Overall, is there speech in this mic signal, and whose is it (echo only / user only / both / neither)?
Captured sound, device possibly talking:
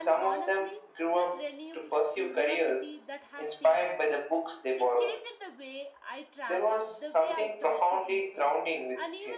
both